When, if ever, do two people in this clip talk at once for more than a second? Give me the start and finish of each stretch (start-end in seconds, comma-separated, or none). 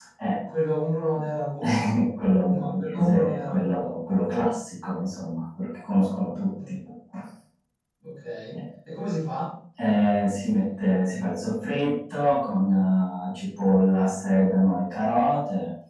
2.5-3.8